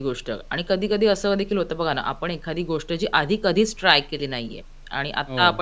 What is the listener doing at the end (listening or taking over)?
listening